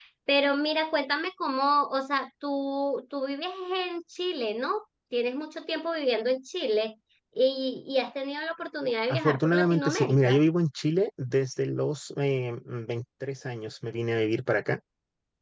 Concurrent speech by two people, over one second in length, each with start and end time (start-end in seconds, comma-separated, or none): 9.1-10.4